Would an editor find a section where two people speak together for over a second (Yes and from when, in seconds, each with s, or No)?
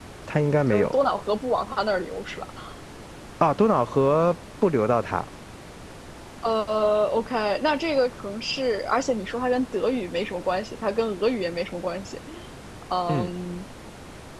No